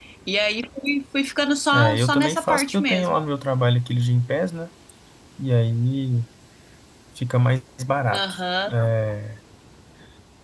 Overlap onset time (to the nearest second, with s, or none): 2 s